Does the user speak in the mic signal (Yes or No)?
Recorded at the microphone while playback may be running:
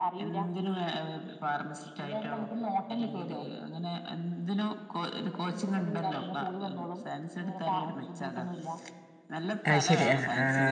Yes